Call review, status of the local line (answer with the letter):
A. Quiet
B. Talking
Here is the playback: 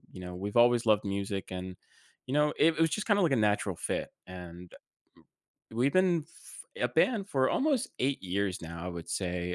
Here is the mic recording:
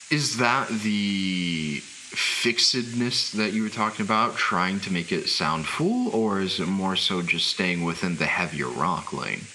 B